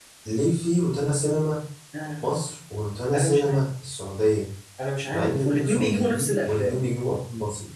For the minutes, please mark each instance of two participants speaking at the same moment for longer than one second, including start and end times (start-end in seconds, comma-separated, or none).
5.1-6.8